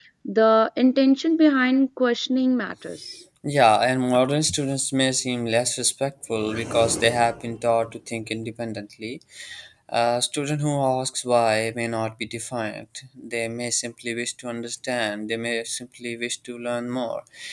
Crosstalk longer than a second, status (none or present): none